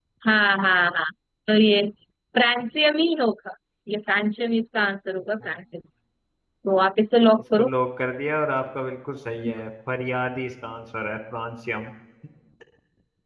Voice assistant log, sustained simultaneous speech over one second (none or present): none